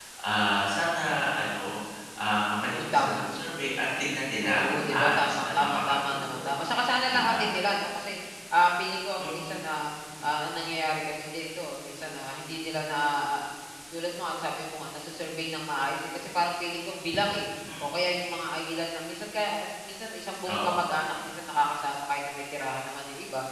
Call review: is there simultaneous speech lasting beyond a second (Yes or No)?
Yes